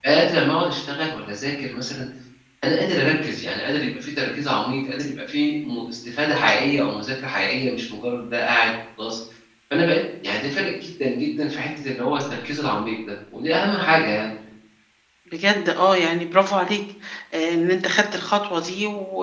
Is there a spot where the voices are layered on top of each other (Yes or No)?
No